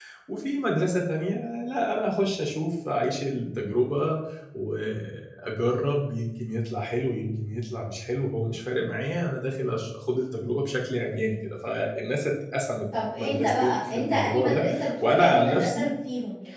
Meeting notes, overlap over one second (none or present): present